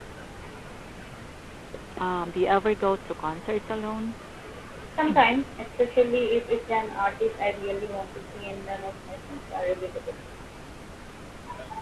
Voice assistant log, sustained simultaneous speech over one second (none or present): none